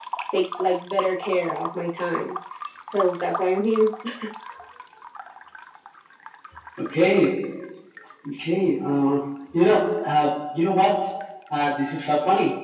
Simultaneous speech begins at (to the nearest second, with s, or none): none